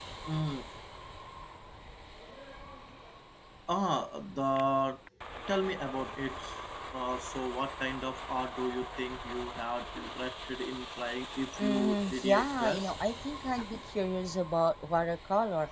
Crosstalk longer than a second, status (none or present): present